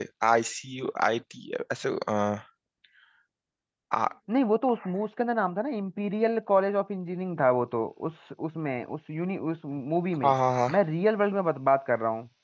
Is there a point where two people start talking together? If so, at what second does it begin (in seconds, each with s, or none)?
none